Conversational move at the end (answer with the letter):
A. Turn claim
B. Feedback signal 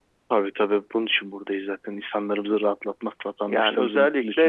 A